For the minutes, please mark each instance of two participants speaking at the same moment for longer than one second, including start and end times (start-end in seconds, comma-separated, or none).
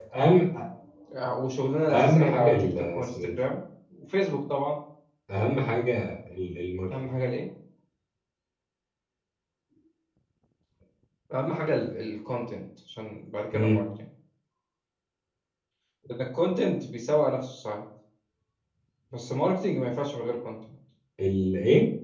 1.9-3.3